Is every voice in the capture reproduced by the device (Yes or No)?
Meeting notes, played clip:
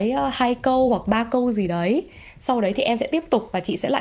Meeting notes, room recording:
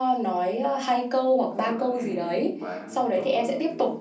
No